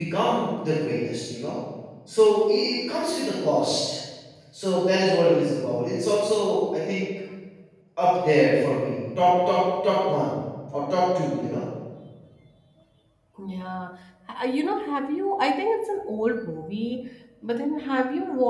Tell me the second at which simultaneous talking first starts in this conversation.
none

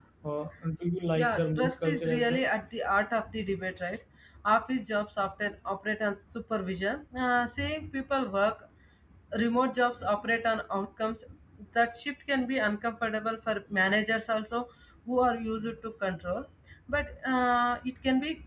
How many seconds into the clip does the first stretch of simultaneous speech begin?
1 s

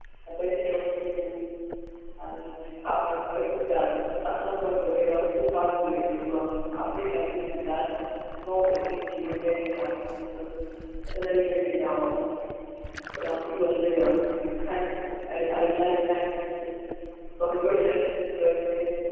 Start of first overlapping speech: none

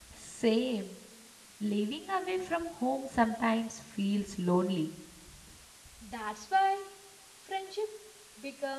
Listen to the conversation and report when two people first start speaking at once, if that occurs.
none

